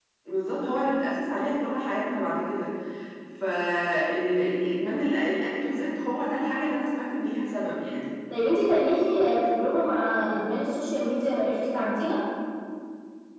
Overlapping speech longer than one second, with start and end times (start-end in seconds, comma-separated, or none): none